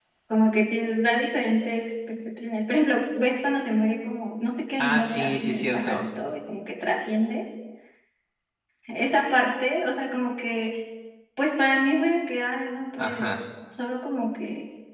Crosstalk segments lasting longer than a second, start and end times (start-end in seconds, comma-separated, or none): 4.8-6.0